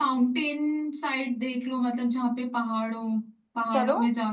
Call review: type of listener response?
listening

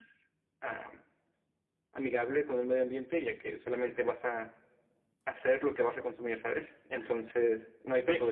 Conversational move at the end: taking over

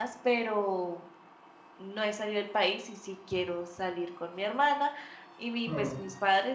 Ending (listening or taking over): listening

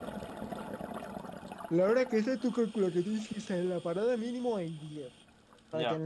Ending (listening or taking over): listening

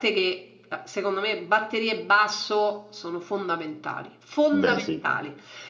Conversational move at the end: listening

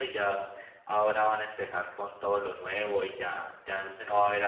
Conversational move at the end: listening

